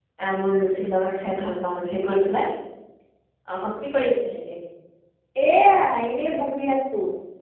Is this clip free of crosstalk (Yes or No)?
Yes